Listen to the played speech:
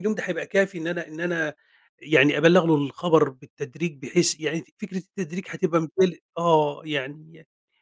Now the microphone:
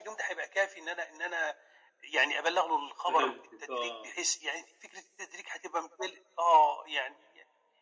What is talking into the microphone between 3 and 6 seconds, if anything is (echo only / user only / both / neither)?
both